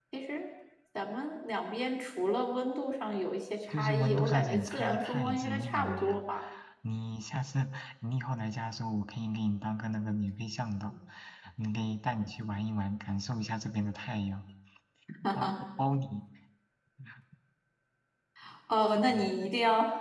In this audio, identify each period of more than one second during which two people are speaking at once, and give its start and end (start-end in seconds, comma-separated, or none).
3.7-6.2